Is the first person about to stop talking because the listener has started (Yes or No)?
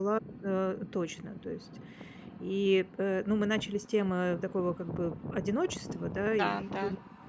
No